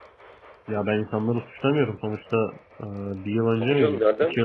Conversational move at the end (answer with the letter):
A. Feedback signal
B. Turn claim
B